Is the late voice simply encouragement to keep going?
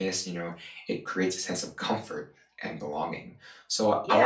No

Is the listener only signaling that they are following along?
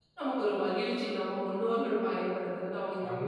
No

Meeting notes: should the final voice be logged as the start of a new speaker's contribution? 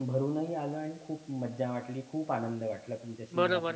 Yes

